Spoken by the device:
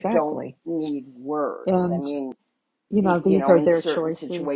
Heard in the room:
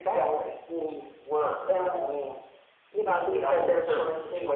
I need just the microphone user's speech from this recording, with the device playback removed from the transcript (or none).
none